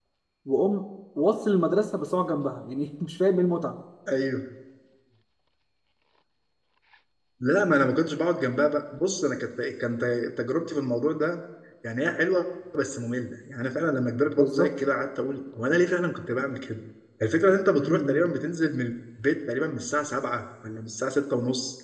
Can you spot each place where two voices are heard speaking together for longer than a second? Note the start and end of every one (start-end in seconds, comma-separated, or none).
none